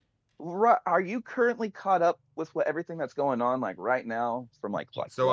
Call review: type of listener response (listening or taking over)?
taking over